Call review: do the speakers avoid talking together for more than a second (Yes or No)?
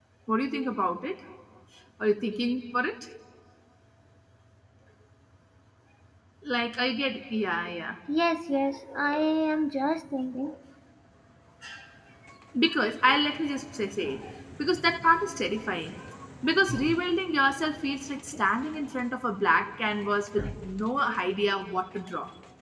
Yes